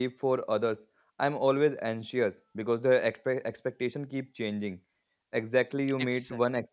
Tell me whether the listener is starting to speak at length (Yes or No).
No